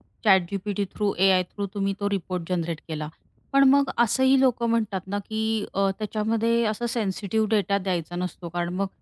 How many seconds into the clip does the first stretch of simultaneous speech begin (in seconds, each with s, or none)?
none